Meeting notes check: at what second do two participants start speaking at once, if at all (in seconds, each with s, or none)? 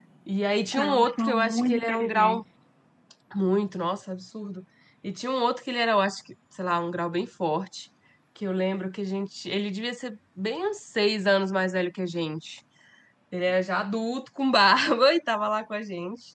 0.8 s